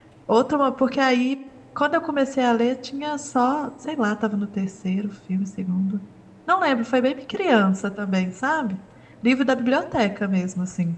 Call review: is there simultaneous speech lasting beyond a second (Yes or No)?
No